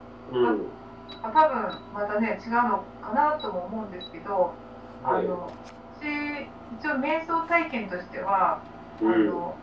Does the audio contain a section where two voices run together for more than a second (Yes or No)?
No